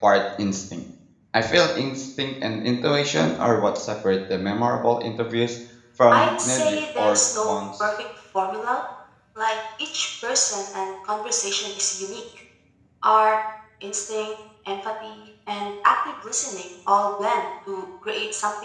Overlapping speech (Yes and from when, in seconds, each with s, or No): Yes, from 6.1 s